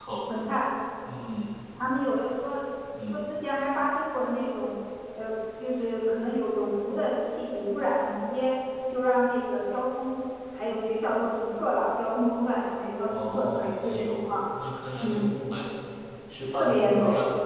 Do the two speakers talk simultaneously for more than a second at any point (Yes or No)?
Yes